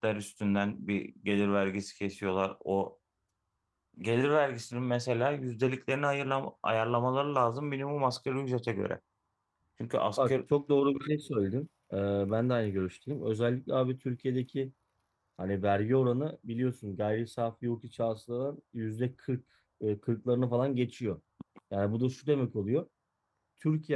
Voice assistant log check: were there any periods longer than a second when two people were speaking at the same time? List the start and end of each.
none

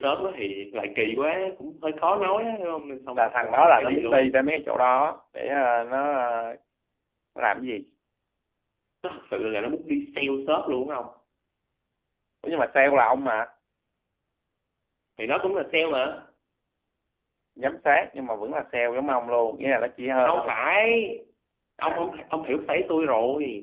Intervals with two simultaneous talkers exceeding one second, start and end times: 3.2-4.4

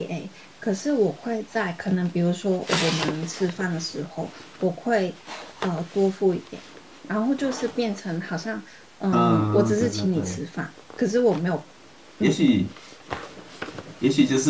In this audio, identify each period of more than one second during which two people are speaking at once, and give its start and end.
9.1-10.4

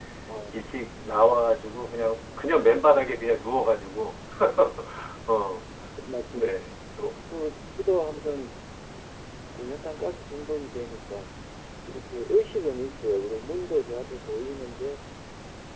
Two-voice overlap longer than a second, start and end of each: none

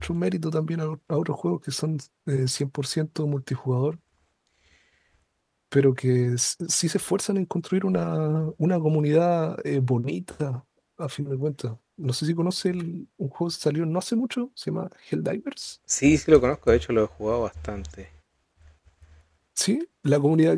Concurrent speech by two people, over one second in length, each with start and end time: none

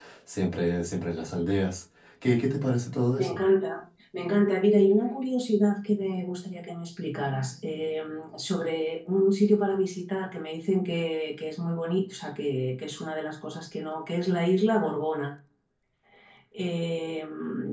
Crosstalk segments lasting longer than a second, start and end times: none

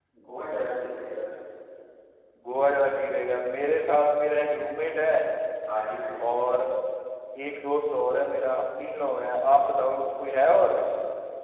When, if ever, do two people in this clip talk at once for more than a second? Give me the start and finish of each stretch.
none

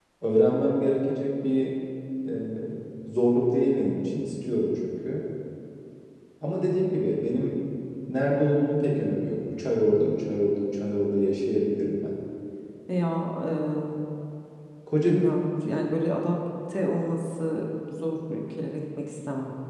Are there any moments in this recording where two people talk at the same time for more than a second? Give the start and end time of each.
none

